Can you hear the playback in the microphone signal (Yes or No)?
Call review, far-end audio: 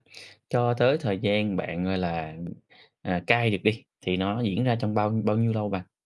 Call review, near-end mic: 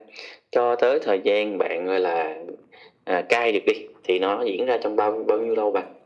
Yes